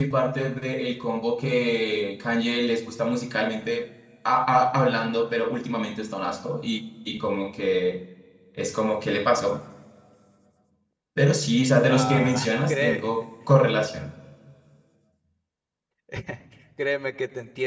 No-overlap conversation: No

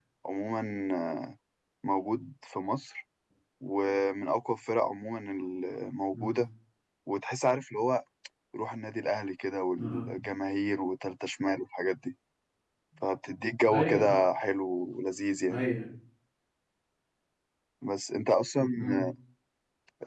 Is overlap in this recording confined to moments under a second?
Yes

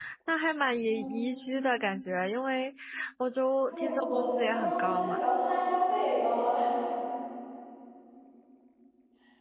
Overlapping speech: Yes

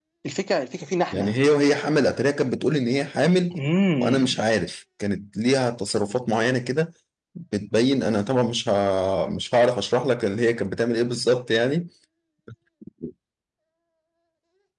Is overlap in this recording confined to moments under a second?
Yes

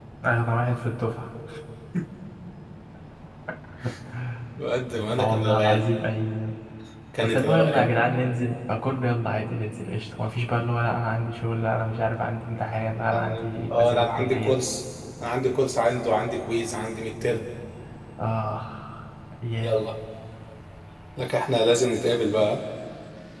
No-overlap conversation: No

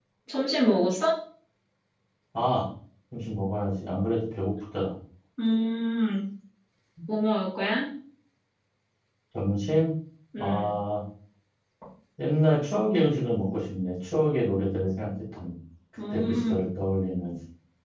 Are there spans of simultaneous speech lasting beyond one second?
No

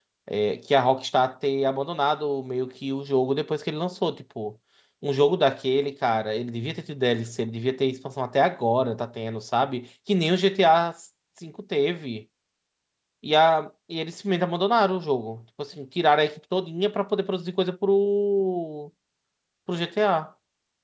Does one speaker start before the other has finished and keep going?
No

